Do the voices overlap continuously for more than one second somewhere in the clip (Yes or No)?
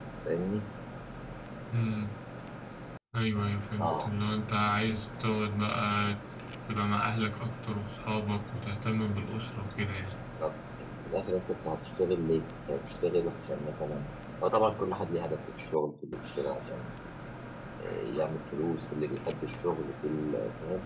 No